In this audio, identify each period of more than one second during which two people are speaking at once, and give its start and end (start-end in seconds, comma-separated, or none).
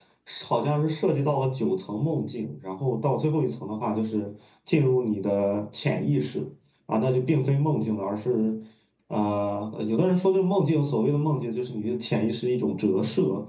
none